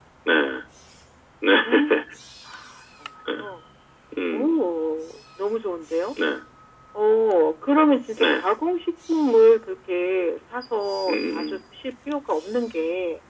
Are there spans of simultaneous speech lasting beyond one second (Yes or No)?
No